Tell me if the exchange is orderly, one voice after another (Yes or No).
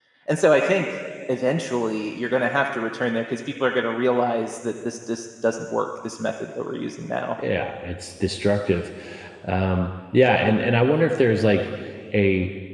Yes